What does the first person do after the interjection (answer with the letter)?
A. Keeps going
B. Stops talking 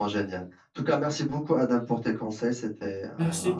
B